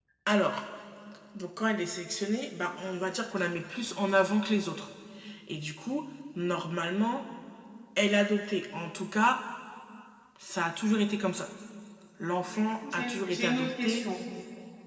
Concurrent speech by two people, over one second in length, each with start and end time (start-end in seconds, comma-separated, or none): 12.5-14.1